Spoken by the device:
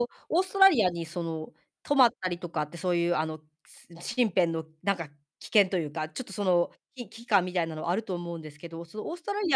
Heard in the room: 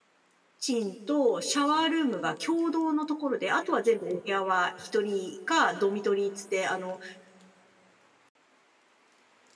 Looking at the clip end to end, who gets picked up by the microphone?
user only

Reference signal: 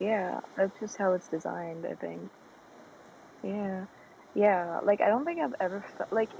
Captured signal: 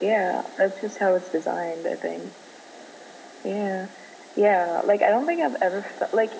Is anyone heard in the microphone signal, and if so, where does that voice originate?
echo only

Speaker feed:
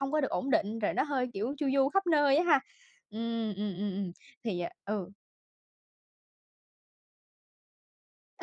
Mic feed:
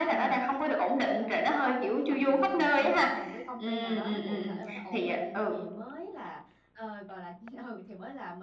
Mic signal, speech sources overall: both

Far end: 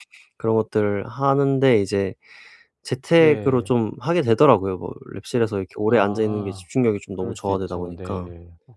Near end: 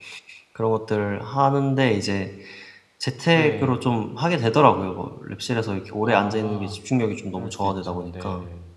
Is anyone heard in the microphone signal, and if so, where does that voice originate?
echo only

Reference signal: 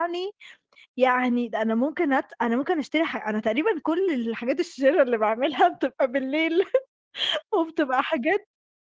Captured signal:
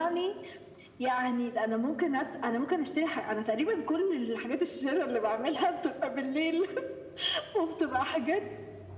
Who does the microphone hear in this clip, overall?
echo only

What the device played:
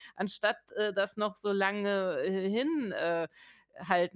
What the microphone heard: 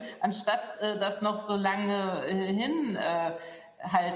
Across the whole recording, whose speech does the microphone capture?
echo only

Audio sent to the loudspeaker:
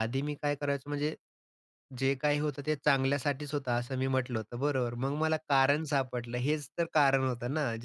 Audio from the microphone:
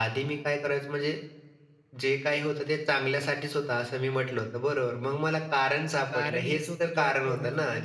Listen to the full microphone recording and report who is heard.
both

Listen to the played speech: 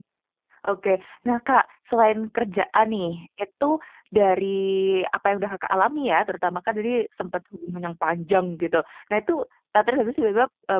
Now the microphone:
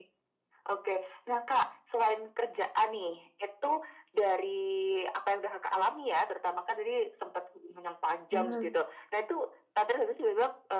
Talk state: both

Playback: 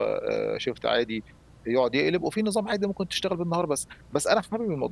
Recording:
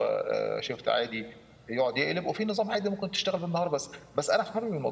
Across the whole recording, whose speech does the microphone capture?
echo only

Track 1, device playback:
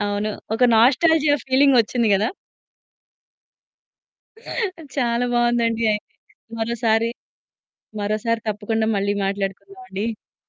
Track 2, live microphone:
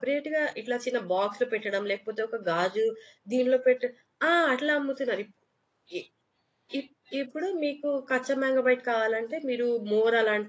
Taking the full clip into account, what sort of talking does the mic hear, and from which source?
user only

